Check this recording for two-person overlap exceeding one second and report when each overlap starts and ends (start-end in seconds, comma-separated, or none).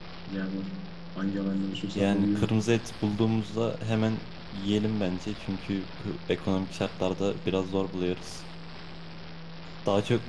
none